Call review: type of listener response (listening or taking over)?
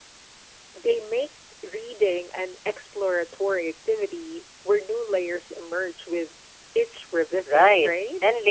taking over